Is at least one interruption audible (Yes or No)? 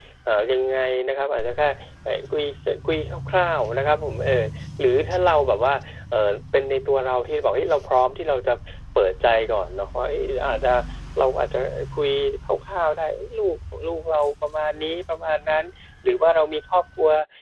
No